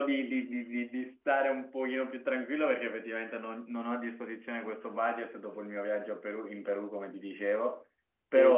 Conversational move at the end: listening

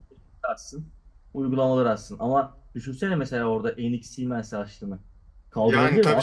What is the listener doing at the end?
taking over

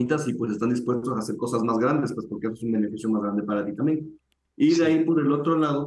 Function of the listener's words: listening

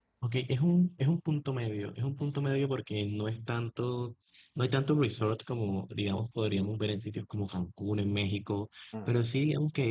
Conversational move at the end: listening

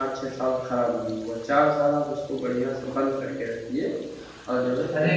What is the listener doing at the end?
taking over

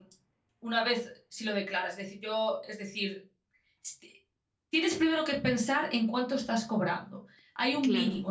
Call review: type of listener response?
listening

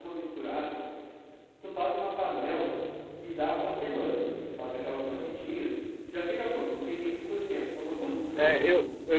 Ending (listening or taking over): taking over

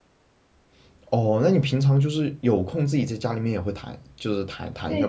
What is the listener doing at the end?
taking over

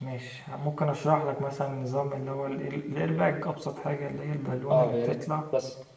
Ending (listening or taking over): taking over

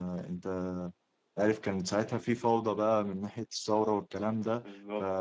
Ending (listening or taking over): listening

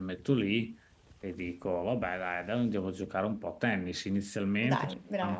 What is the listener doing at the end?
listening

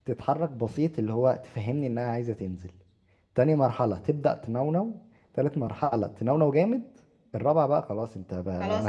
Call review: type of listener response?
taking over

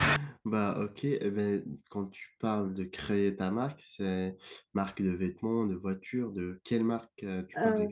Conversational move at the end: taking over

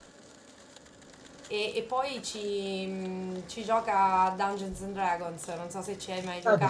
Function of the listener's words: taking over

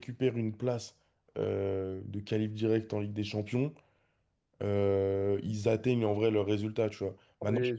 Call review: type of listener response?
listening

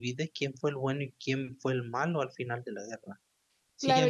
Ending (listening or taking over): taking over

